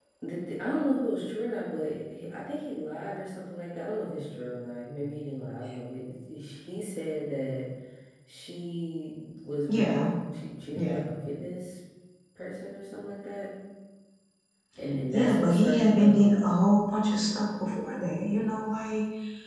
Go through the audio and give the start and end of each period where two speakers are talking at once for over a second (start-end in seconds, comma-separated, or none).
15.1-16.7